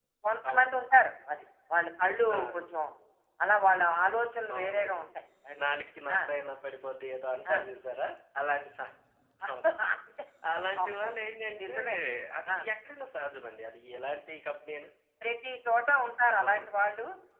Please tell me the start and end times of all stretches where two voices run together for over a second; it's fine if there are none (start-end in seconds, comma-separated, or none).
none